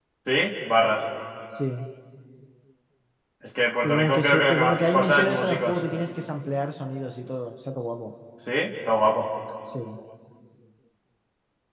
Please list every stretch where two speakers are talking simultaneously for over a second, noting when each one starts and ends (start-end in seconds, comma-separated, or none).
3.8-5.8